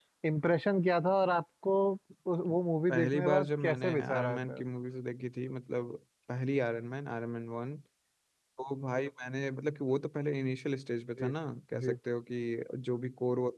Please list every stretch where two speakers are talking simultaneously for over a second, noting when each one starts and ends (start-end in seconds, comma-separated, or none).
2.9-4.7